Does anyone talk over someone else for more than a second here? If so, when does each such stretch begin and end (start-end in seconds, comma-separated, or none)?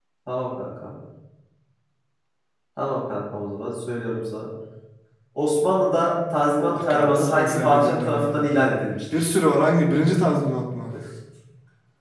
6.6-8.6